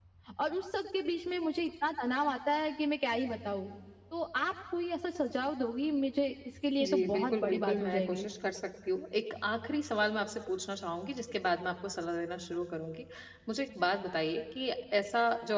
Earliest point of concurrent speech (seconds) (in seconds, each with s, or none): 6.8 s